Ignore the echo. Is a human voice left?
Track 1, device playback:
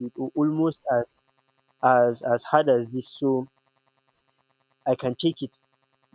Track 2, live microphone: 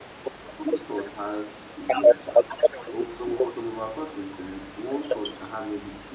Yes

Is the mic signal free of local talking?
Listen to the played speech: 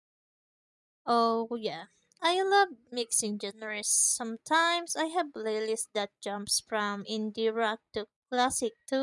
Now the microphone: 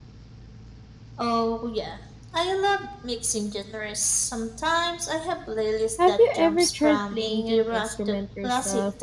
No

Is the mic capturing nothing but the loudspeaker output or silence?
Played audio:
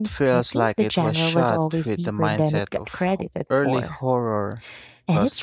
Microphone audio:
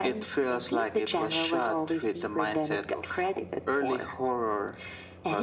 Yes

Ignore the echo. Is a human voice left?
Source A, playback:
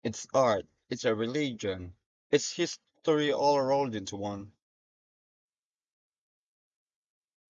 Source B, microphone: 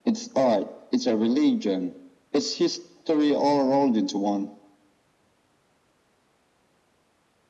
No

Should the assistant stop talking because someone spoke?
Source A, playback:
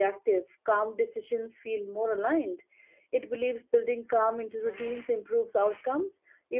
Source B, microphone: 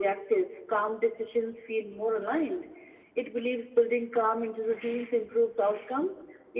No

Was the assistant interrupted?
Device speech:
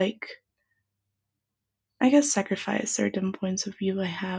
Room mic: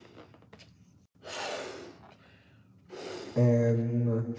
Yes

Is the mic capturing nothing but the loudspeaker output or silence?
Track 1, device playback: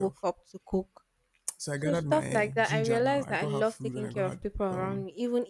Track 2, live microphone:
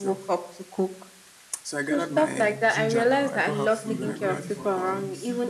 No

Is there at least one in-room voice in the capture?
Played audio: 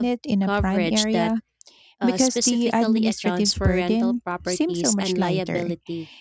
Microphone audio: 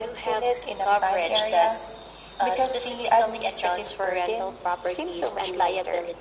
No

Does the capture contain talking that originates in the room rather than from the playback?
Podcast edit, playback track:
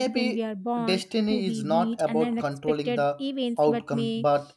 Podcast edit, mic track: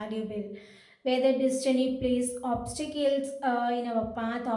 Yes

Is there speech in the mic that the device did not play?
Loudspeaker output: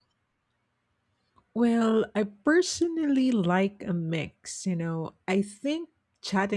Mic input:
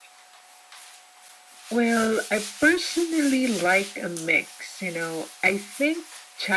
No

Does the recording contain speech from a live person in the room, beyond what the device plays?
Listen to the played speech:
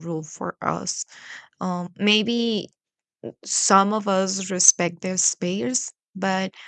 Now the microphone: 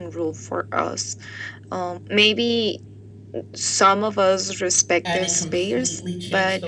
Yes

